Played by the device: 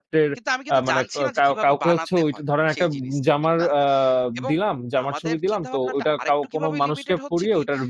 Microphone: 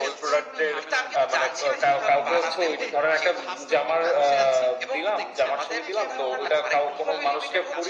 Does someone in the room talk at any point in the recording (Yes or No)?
Yes